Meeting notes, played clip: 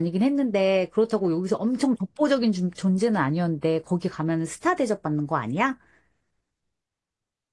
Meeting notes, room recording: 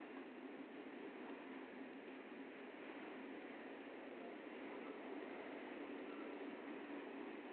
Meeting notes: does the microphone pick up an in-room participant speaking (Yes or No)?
No